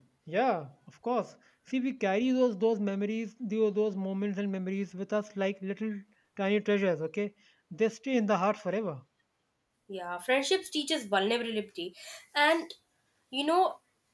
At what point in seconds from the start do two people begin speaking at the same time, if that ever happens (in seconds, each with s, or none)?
none